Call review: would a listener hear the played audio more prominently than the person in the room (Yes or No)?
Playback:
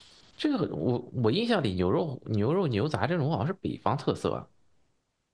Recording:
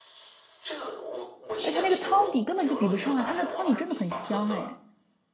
No